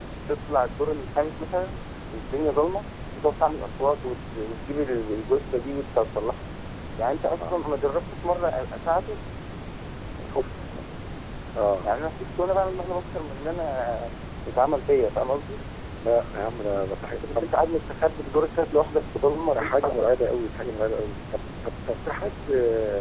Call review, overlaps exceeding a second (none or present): none